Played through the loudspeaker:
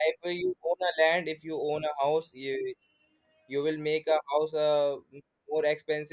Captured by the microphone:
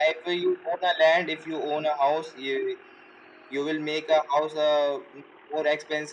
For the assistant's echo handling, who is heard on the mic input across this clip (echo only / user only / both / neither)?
echo only